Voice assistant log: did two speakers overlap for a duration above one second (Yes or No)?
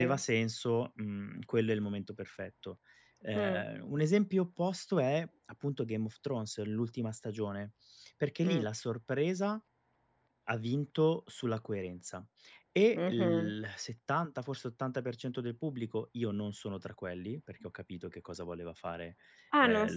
No